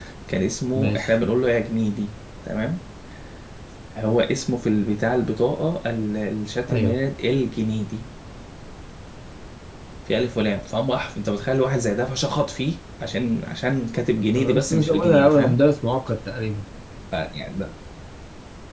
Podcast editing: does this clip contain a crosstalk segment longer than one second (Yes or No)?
Yes